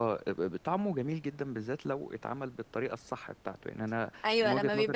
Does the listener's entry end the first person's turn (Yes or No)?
Yes